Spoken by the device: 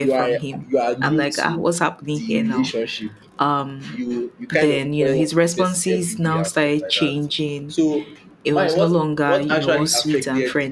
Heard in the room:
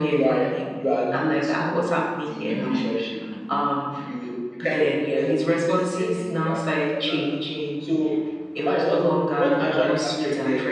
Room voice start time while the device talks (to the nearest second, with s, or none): 2 s